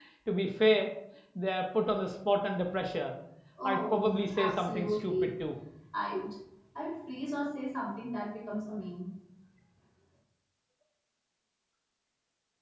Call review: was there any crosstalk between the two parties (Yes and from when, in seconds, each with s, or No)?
Yes, from 3.6 s